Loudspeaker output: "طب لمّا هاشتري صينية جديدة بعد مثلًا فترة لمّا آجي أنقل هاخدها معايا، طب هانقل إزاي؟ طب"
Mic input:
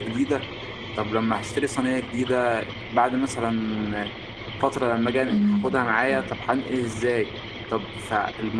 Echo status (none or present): present